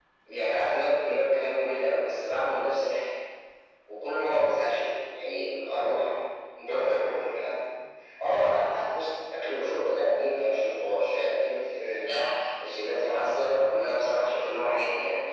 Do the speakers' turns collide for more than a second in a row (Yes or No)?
No